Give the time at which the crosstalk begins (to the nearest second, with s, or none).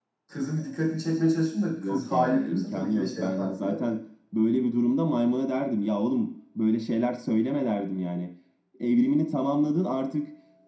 2 s